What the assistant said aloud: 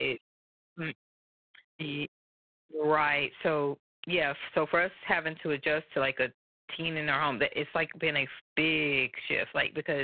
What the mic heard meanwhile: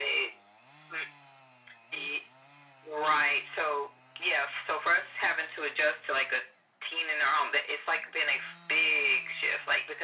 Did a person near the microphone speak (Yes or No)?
No